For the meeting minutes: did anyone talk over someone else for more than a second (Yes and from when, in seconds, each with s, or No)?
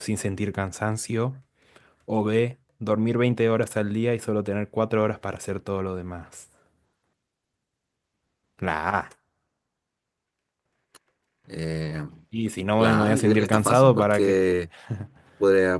Yes, from 12.8 s